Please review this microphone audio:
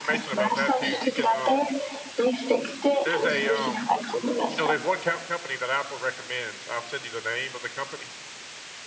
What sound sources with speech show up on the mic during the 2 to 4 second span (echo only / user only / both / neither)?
both